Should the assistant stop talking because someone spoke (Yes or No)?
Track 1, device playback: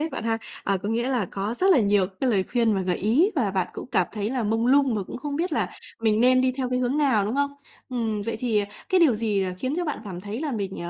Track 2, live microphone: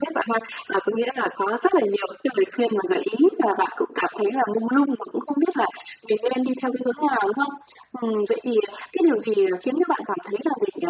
No